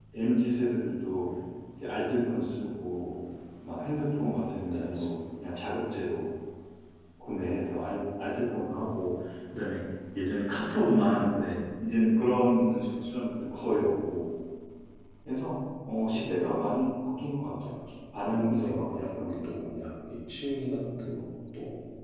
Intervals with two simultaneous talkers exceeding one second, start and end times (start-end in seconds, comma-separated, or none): 18.3-19.5